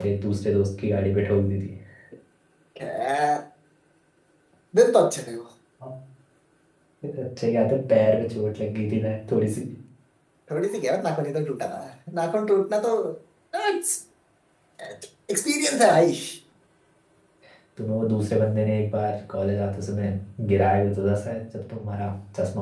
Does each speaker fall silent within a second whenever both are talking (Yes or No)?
Yes